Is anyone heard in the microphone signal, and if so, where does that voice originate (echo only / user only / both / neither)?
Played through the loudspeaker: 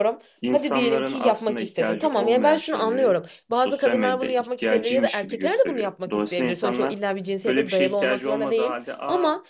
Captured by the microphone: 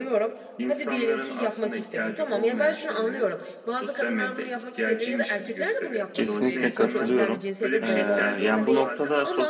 both